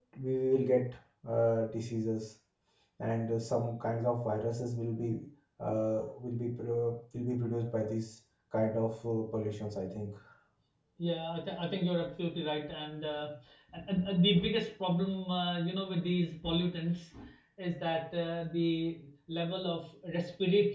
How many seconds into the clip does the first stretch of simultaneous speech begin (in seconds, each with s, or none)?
none